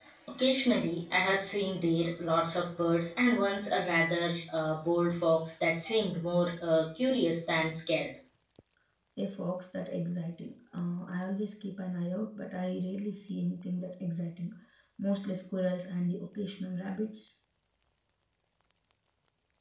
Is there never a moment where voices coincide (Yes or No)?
Yes